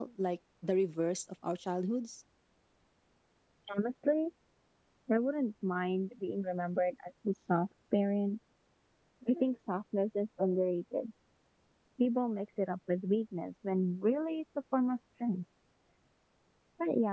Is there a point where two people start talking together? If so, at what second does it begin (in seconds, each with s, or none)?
none